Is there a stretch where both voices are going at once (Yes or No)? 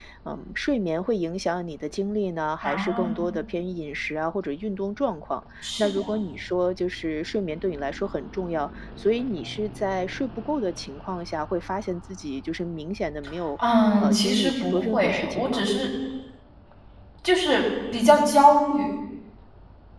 Yes